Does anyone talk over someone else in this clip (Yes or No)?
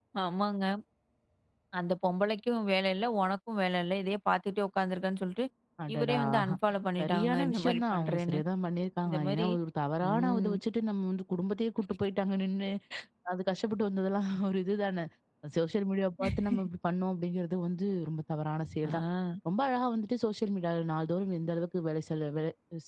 Yes